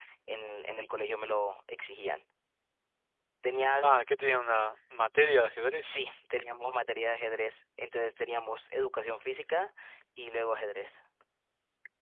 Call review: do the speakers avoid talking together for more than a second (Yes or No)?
Yes